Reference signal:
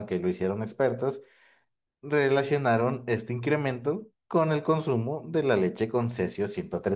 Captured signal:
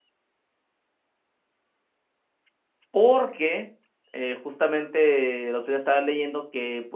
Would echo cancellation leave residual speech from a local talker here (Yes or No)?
Yes